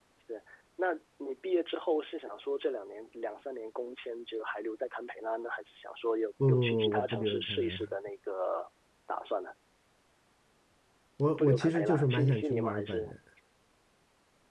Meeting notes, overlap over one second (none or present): present